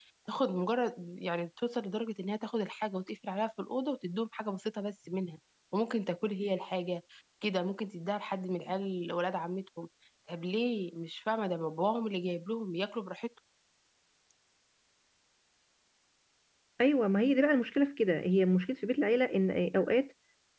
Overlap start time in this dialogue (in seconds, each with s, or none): none